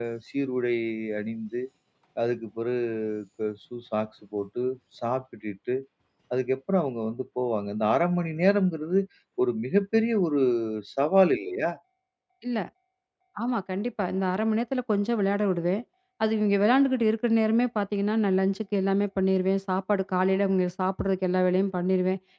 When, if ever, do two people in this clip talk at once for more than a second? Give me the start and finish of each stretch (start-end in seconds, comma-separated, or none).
none